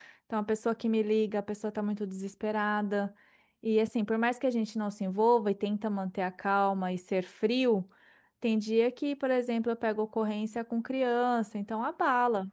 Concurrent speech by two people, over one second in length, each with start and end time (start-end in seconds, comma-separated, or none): none